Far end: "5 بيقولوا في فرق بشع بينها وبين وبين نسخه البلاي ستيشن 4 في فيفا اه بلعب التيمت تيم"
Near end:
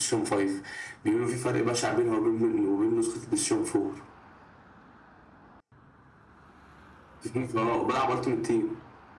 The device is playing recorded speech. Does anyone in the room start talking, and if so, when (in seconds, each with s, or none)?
none